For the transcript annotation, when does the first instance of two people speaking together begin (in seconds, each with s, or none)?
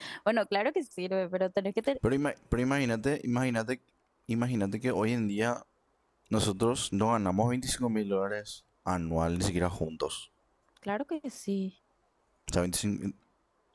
none